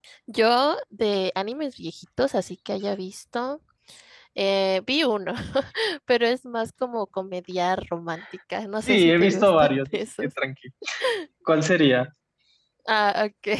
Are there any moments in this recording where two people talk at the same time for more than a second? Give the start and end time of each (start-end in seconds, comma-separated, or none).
8.9-10.3